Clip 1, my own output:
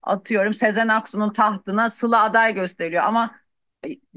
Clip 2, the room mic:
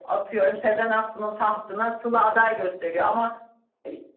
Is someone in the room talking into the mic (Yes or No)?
No